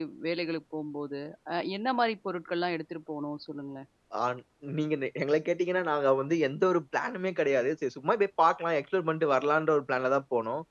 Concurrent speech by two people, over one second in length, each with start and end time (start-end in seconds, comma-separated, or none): none